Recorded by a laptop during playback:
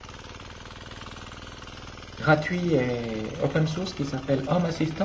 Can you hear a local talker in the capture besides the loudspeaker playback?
Yes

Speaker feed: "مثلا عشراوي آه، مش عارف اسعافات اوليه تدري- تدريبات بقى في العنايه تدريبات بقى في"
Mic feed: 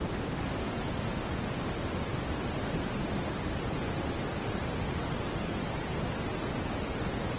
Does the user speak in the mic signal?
No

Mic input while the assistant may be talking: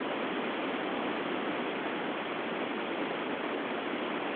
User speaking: No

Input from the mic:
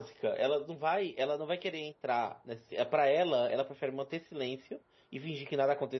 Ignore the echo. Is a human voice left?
Yes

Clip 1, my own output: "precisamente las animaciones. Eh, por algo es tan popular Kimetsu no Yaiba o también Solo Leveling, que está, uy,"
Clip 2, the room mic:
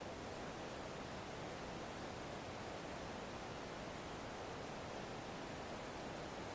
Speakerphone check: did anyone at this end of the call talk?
No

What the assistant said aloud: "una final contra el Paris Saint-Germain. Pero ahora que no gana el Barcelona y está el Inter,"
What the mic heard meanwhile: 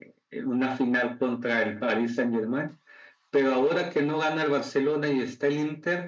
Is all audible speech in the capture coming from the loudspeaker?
Yes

